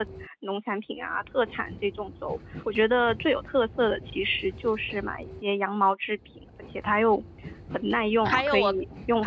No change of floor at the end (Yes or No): No